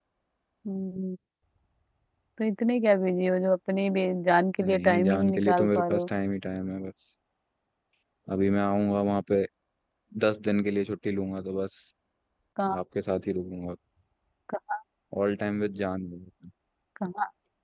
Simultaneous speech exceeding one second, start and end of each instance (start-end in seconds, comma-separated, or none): 4.6-6.1